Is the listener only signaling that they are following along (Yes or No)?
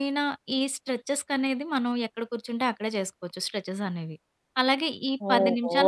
Yes